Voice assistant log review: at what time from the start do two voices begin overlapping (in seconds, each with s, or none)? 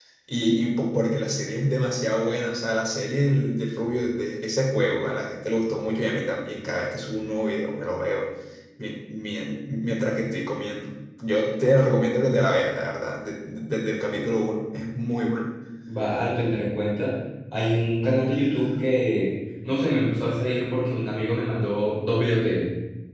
none